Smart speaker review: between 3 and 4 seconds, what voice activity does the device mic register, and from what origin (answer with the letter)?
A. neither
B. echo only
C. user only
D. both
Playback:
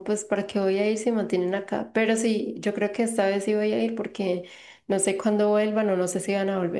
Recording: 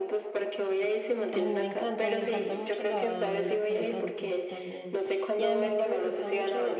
D